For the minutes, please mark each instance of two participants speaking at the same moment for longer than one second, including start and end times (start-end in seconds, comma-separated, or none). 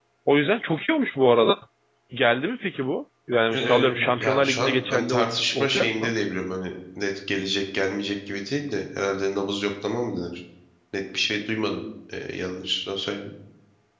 3.5-6.1